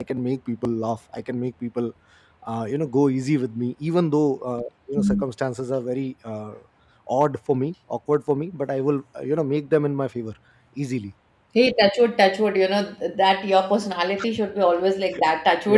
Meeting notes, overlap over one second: none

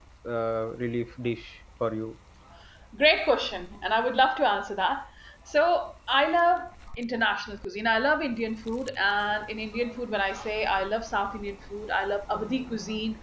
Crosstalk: none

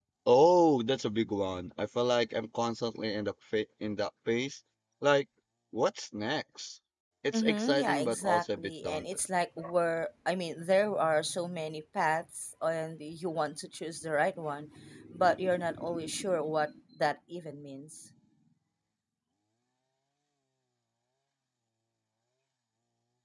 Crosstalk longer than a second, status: present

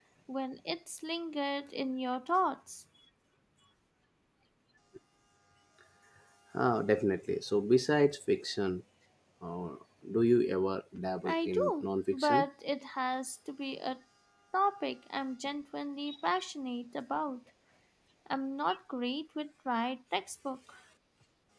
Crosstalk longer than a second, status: present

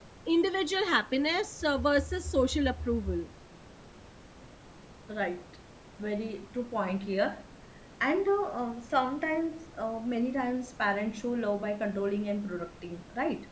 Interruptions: none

